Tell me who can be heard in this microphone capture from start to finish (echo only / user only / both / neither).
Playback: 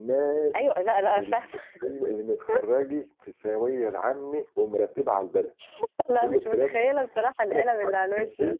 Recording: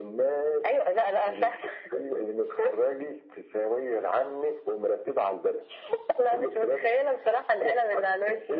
echo only